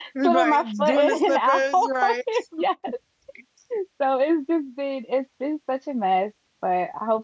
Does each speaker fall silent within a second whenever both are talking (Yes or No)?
No